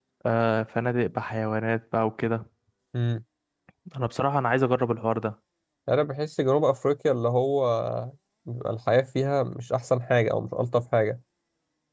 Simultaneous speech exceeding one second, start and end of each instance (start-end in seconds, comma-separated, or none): none